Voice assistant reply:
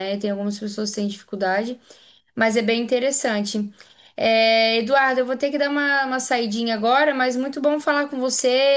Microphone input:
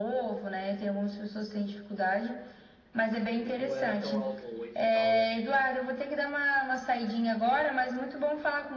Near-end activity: present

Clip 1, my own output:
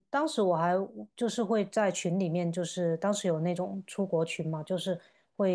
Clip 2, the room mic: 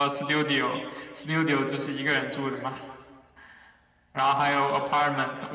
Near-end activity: present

